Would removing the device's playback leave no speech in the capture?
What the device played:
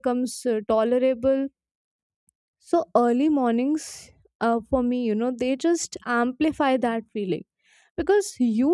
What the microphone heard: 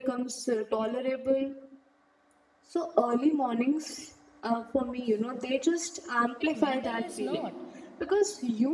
No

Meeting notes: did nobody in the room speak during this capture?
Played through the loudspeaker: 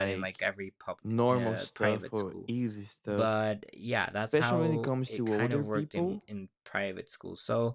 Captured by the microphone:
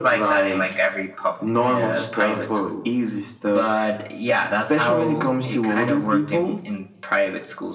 Yes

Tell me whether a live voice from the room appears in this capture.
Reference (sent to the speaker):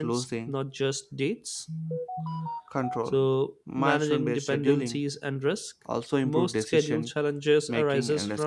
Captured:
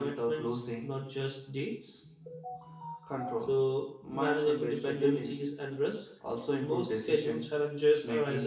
No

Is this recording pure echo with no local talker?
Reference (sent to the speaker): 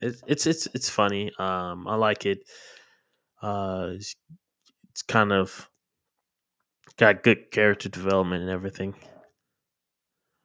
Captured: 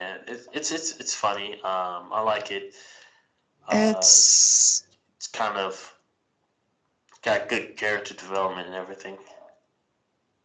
No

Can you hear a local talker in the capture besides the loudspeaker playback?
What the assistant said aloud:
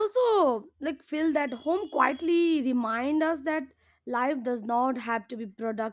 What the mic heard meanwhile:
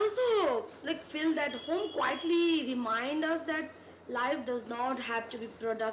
No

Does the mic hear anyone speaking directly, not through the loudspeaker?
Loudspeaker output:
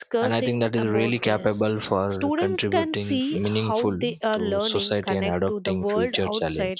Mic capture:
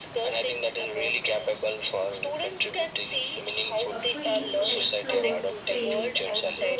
Yes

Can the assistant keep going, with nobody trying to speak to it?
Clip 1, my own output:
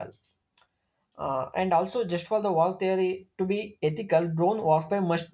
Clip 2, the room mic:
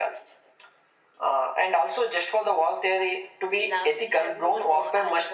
No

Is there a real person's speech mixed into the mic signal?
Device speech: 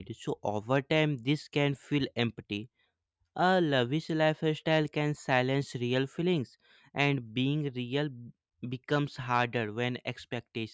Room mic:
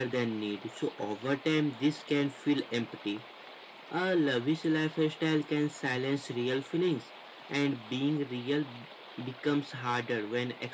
No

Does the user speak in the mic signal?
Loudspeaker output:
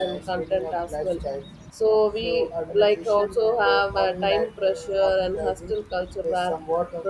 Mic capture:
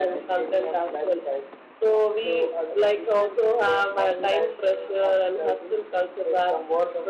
No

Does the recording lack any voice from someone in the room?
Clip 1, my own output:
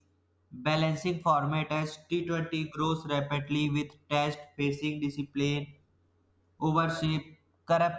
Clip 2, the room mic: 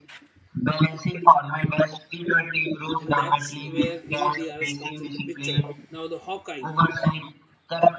No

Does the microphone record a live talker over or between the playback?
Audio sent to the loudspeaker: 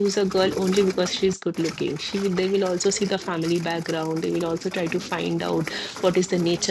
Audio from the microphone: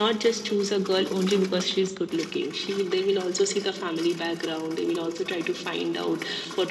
No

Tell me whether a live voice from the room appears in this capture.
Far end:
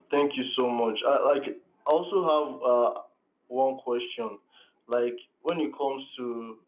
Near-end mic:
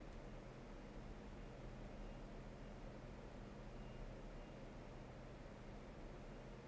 No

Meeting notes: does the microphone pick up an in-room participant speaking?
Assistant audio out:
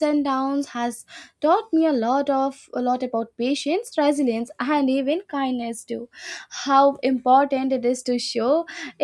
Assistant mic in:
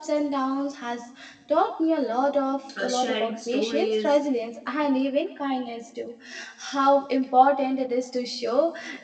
Yes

